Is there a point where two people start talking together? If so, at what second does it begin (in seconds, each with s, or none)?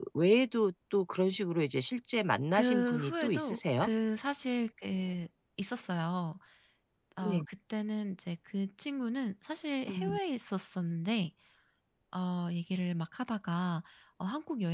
2.6 s